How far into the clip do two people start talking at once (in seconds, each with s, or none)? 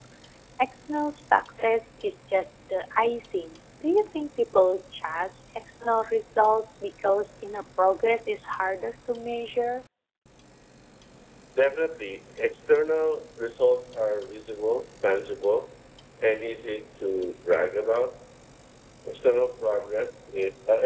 none